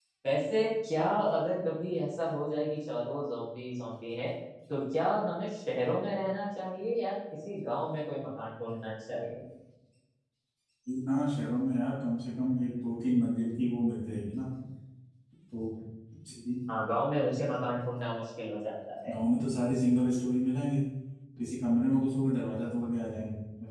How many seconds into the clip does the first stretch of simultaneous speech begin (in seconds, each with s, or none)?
none